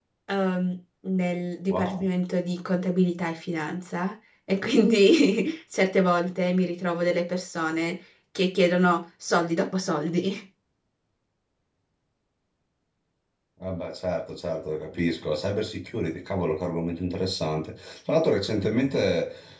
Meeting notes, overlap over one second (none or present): none